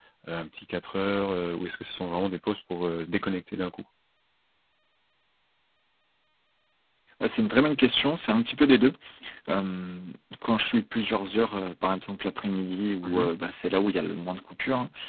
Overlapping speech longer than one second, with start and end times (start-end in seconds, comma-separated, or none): none